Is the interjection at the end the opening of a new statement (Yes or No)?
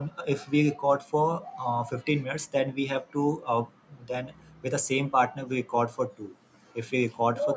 Yes